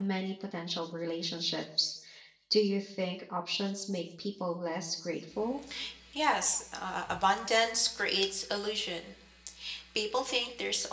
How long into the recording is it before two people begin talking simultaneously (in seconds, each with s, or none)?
none